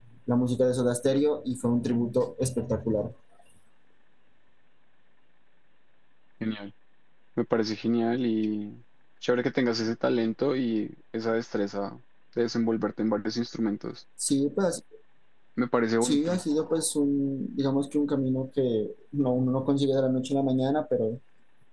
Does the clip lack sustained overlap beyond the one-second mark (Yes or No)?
Yes